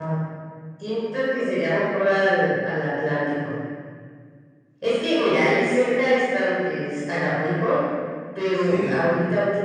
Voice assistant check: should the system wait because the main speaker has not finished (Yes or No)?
Yes